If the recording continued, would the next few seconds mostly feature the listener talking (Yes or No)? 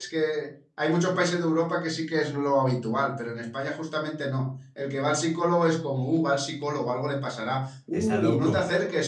No